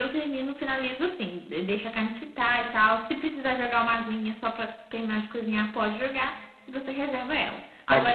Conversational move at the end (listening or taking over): taking over